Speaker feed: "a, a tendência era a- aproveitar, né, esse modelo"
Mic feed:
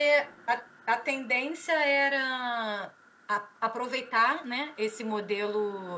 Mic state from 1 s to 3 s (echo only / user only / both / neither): echo only